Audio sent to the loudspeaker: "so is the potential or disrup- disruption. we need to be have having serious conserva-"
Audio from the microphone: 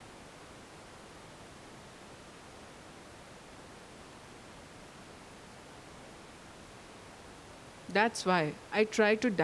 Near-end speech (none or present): present